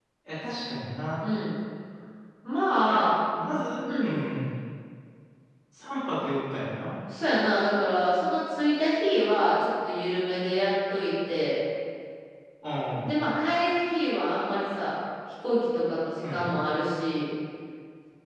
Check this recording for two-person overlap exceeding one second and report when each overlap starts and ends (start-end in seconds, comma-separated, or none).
none